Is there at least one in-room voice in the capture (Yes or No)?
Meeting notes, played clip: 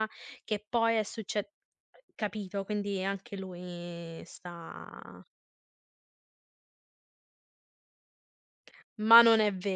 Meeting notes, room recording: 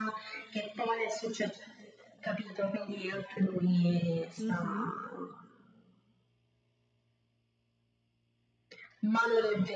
Yes